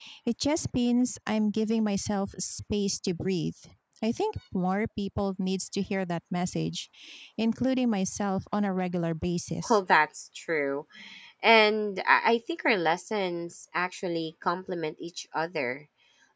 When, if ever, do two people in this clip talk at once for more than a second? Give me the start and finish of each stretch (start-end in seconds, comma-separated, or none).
none